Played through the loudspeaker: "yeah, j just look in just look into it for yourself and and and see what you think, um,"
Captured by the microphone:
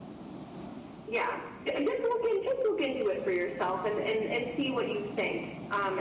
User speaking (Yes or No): No